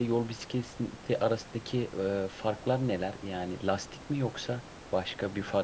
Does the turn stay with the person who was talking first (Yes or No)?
No